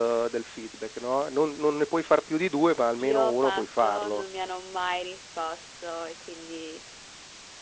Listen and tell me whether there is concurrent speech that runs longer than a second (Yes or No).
Yes